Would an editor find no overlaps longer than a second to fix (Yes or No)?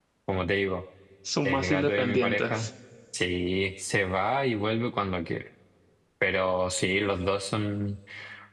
No